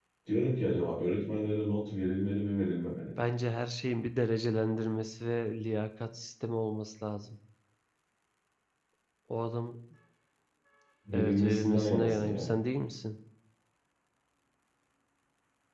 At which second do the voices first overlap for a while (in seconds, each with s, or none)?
11.1 s